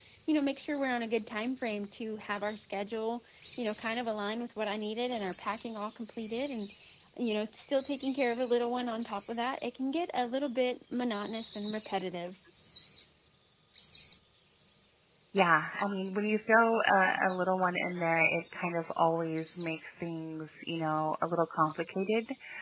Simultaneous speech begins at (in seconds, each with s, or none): none